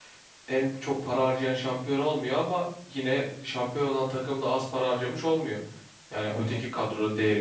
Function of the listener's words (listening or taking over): listening